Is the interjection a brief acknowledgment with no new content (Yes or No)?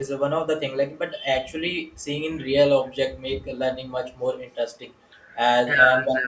Yes